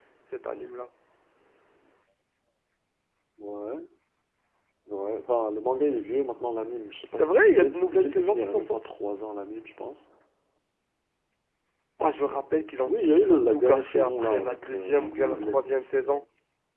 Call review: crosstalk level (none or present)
present